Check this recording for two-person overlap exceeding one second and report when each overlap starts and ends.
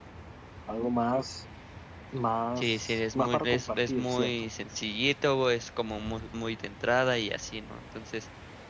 2.6-4.5

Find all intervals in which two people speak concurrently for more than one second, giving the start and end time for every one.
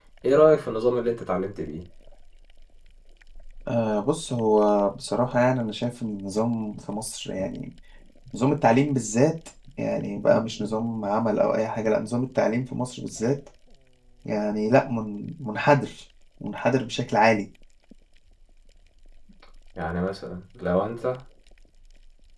none

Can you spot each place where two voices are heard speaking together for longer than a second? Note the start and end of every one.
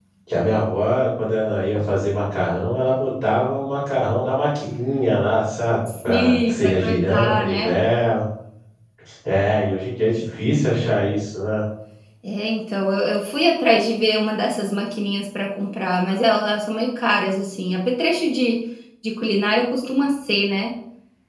6.1-7.7

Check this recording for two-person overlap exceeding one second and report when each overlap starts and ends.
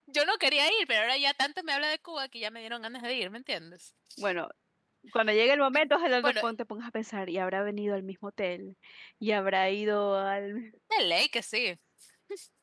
none

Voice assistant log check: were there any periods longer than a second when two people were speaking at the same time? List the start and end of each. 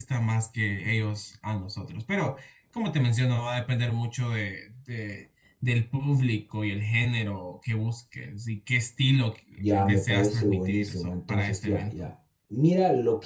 9.6-12.1

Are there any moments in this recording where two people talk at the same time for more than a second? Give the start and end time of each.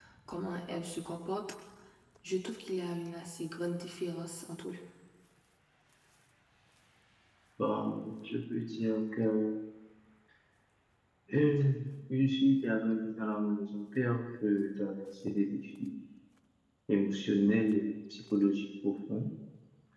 none

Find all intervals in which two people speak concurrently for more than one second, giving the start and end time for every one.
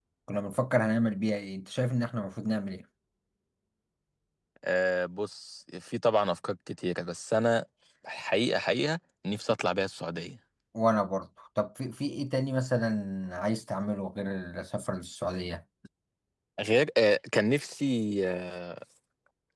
none

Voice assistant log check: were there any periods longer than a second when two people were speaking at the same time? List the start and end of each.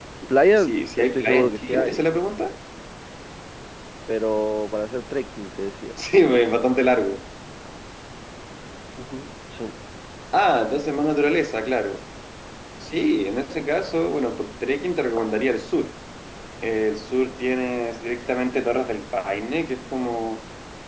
0.6-2.0

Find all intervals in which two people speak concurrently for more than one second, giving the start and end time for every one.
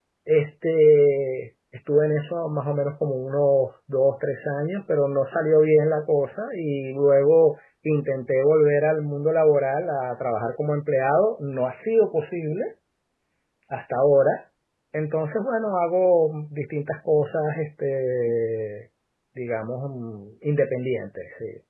none

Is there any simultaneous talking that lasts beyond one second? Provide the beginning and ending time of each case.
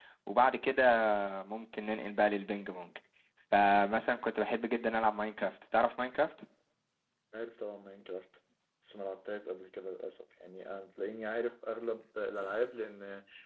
none

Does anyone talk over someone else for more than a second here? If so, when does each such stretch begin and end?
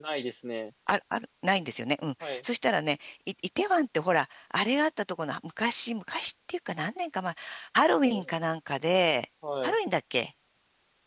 none

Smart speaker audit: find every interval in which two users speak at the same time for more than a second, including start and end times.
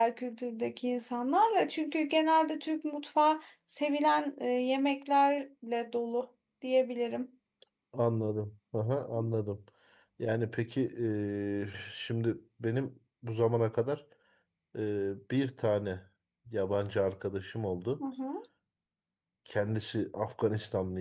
none

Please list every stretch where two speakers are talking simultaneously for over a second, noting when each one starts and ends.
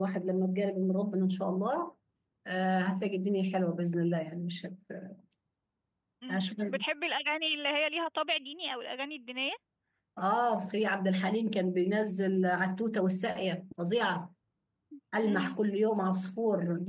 none

